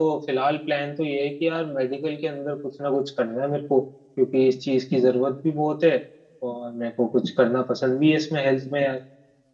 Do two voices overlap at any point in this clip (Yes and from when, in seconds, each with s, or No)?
No